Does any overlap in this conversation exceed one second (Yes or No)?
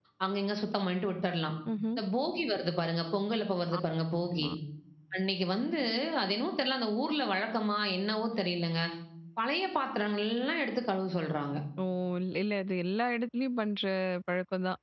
No